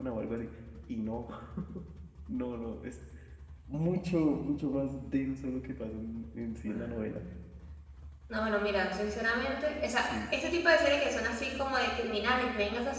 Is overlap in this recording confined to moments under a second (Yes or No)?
Yes